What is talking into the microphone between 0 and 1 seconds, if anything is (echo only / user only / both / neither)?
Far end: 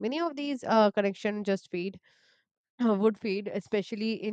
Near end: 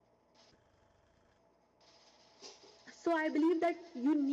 neither